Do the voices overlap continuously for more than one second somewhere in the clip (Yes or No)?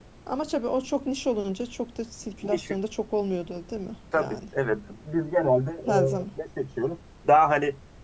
No